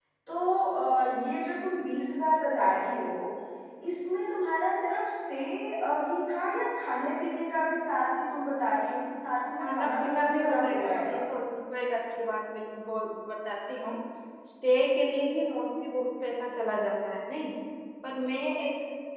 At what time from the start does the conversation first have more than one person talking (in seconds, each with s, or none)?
9.6 s